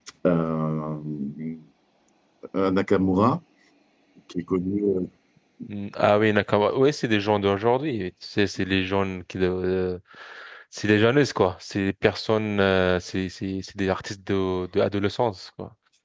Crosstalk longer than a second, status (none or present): none